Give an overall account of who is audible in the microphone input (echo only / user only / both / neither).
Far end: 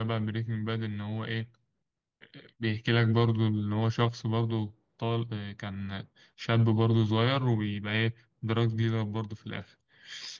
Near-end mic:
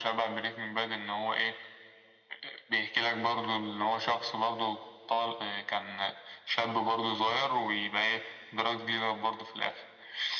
echo only